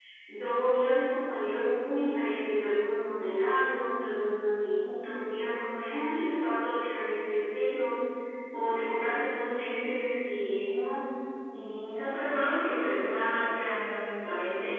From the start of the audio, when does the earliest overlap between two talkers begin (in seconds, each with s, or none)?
none